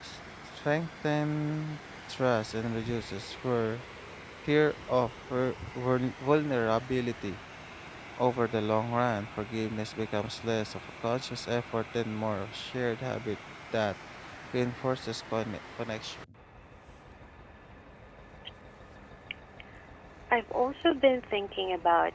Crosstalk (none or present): none